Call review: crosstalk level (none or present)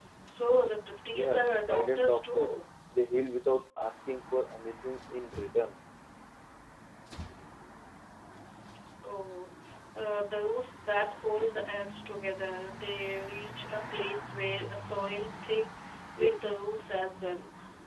present